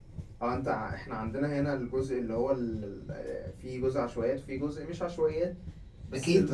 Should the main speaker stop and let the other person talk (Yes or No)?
Yes